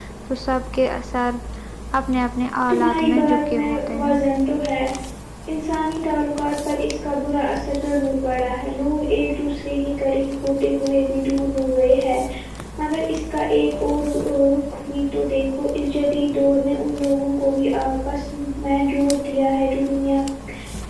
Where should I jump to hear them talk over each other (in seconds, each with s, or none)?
2.7 s